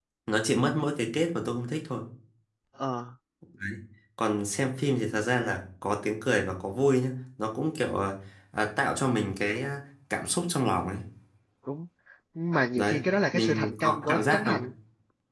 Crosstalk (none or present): present